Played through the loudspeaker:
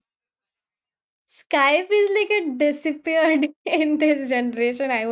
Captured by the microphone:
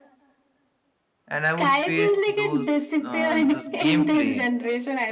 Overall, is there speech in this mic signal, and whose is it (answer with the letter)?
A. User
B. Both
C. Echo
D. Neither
B